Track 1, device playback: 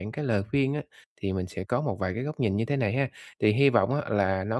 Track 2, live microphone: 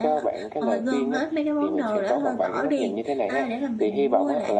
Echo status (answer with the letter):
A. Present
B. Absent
A